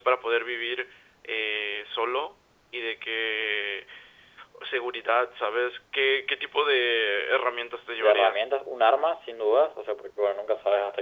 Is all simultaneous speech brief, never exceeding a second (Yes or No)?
Yes